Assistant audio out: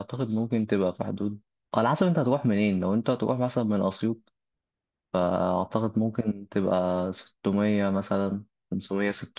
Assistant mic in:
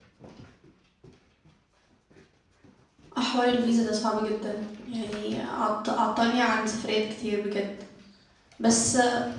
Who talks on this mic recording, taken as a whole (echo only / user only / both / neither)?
user only